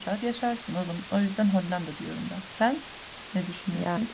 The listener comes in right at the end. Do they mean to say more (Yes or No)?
Yes